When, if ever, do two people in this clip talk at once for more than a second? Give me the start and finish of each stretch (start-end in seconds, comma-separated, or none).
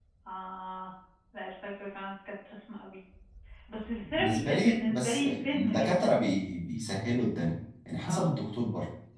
4.2-6.2